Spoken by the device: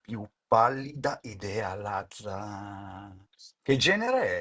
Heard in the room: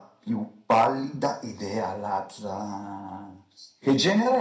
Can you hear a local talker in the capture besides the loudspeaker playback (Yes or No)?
No